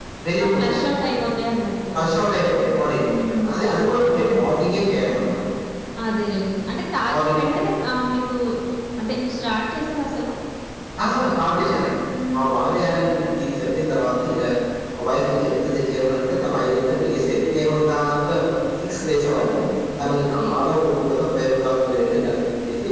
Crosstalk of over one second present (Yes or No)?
No